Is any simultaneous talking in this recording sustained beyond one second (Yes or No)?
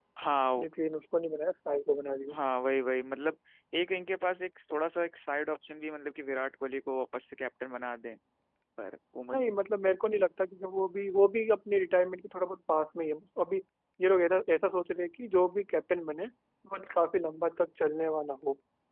No